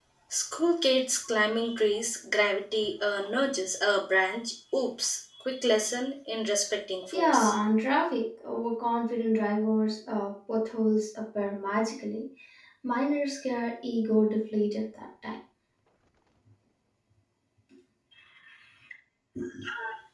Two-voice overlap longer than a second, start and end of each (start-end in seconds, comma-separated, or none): none